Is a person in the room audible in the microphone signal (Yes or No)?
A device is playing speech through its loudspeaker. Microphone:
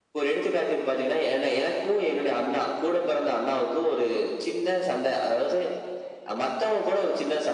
No